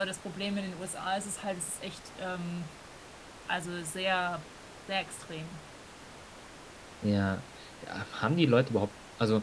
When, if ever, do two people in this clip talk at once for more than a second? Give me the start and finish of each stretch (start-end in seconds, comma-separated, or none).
none